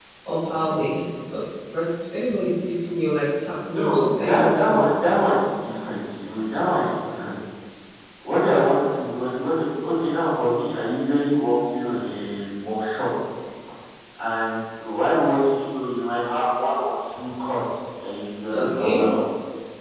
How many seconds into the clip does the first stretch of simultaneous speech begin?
3.7 s

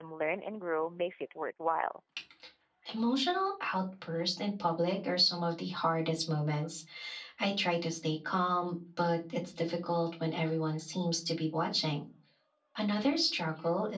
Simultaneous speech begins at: none

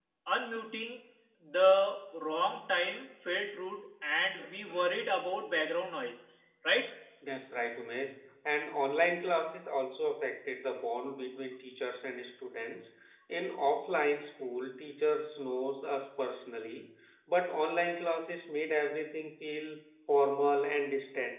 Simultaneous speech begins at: none

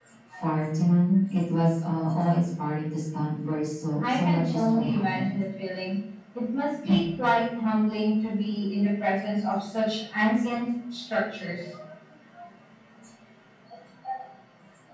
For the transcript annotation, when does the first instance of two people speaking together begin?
4.0 s

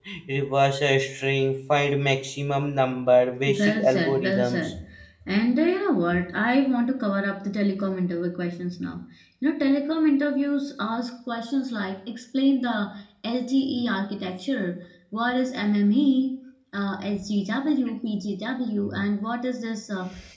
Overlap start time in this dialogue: 3.5 s

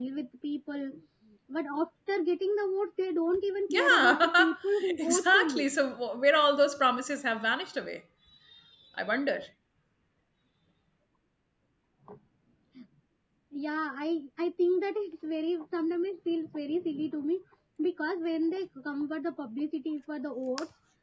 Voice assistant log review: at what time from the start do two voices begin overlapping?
3.7 s

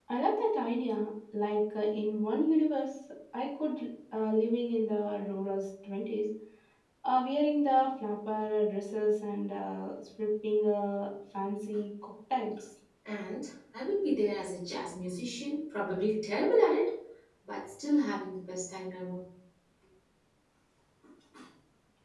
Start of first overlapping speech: none

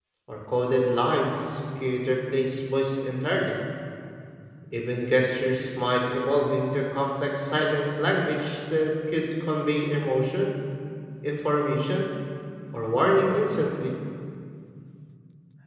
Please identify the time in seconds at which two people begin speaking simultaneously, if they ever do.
none

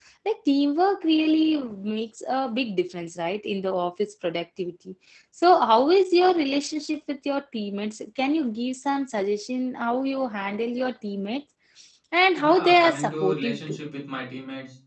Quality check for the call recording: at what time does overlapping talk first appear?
12.4 s

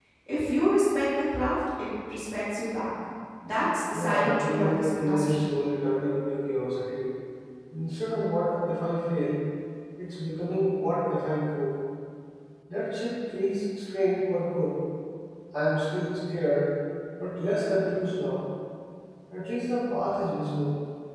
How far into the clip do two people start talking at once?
3.9 s

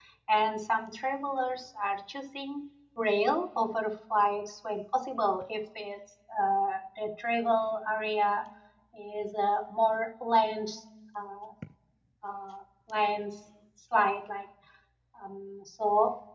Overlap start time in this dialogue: none

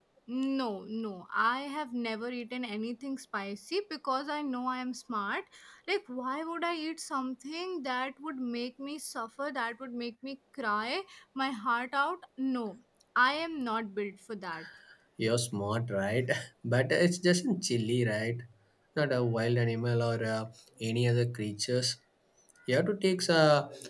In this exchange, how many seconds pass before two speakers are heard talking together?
none

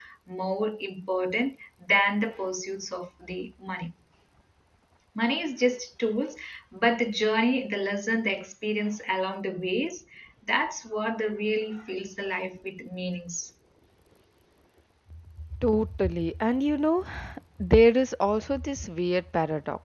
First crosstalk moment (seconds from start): none

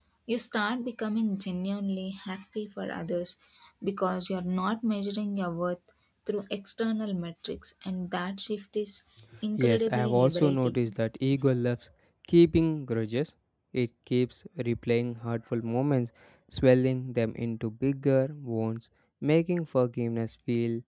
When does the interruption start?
9.6 s

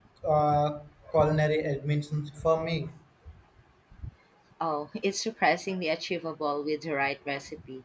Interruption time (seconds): none

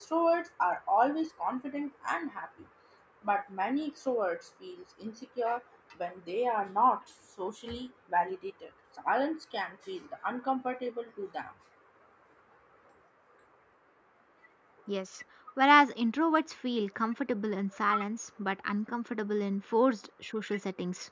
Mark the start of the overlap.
none

